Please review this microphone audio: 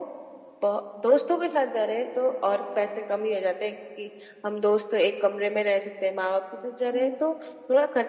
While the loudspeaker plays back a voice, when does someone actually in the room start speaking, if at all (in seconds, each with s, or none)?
6.8 s